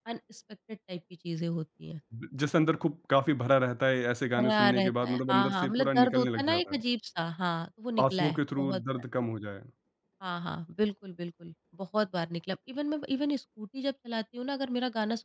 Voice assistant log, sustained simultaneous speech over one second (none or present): present